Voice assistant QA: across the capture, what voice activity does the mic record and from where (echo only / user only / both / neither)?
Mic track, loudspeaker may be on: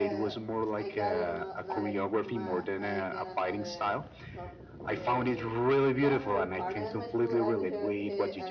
both